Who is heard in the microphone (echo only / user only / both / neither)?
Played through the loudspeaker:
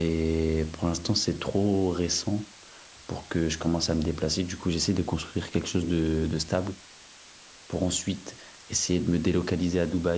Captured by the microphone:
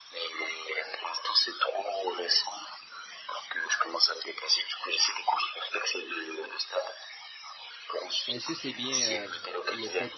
both